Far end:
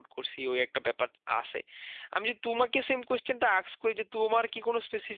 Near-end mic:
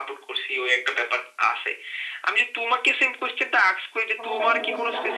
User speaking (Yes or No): Yes